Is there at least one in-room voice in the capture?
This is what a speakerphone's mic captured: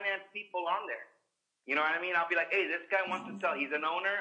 Yes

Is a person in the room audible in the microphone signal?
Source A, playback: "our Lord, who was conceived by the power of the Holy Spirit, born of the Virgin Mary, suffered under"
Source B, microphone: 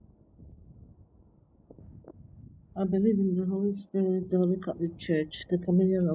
Yes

